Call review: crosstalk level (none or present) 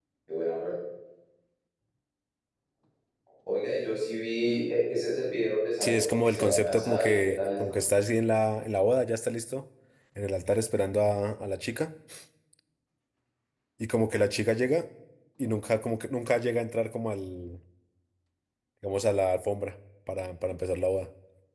present